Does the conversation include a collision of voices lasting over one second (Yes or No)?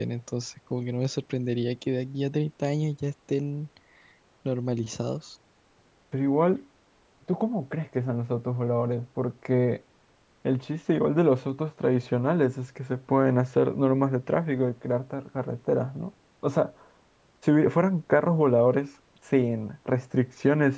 No